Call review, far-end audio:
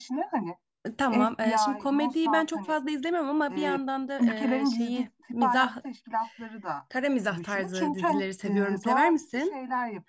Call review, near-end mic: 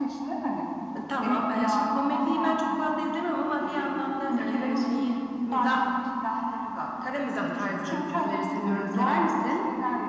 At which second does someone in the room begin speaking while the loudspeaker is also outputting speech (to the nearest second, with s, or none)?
none